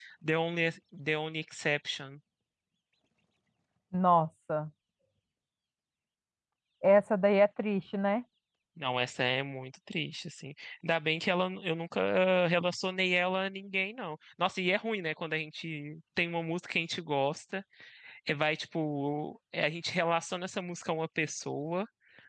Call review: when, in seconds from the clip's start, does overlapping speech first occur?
none

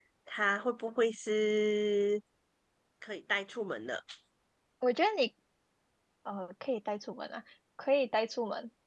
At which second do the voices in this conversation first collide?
none

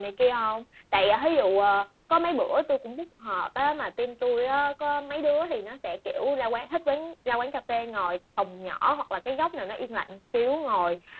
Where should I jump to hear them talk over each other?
none

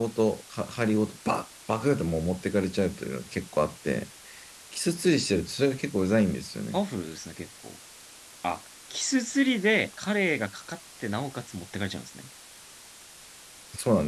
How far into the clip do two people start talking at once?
none

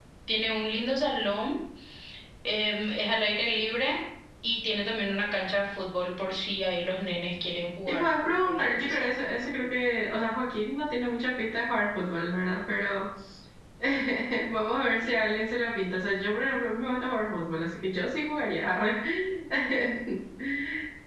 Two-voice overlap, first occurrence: 7.9 s

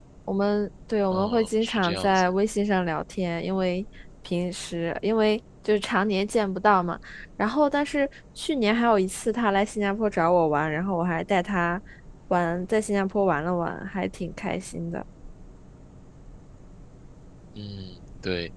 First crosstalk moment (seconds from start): 1.1 s

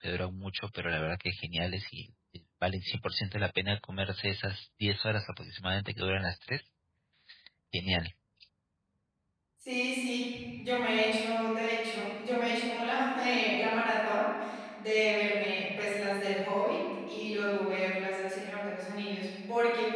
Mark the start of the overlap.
none

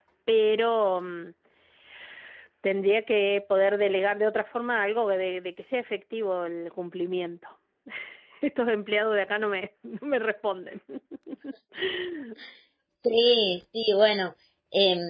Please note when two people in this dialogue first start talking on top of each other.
none

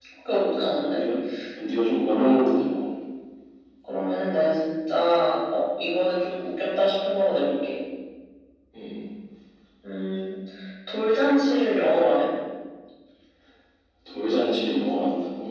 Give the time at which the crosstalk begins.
none

